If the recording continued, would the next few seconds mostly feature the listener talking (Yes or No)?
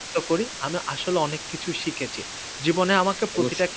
No